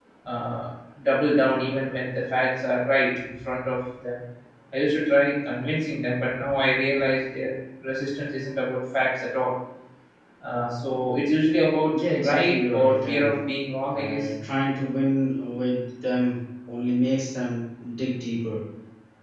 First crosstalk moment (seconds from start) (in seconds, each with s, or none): 11.9 s